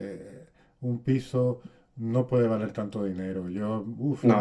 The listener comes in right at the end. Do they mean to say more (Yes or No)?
Yes